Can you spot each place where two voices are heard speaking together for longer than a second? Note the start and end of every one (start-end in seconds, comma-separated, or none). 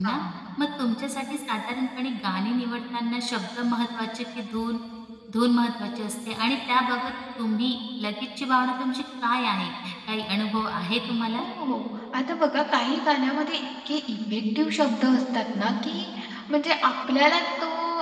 none